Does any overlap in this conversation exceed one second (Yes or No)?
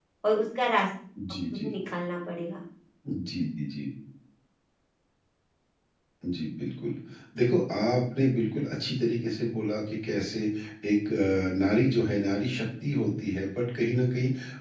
No